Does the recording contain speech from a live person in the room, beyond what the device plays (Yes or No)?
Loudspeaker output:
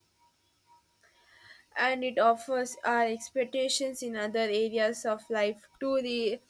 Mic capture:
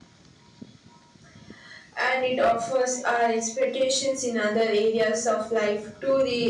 No